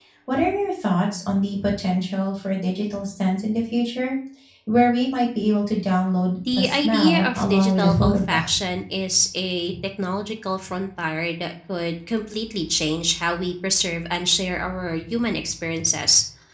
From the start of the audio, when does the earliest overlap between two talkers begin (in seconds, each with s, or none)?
6.5 s